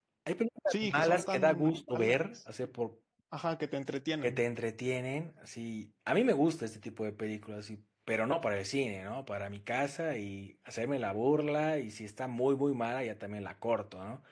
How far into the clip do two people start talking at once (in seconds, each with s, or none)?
0.7 s